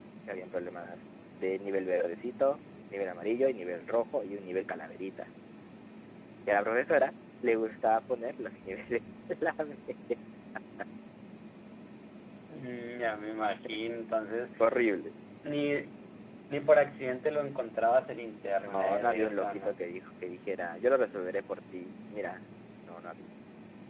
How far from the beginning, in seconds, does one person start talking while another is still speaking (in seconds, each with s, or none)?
18.4 s